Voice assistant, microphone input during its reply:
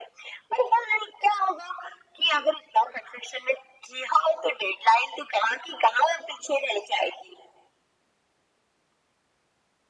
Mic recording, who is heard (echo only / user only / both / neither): echo only